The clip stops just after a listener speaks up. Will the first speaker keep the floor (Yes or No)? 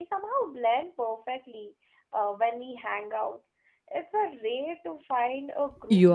No